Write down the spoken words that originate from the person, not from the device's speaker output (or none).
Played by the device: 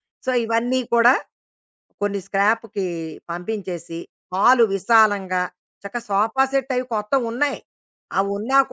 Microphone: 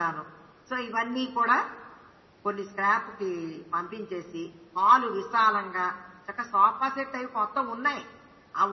none